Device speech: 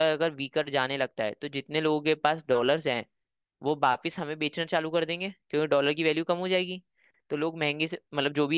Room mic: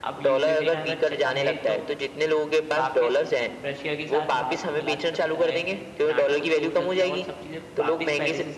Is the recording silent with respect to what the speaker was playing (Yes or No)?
No